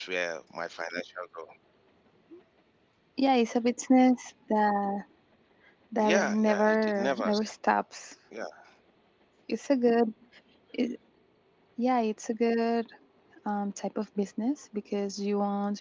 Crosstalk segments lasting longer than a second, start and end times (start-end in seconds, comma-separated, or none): 6.0-7.3